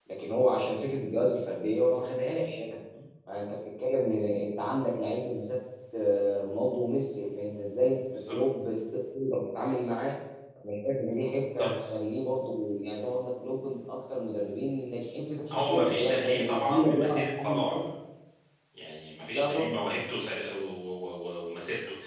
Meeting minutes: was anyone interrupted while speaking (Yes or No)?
Yes